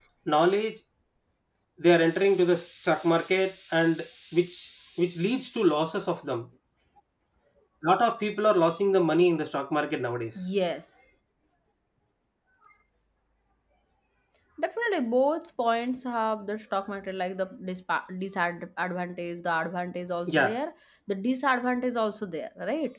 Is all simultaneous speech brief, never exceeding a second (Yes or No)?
Yes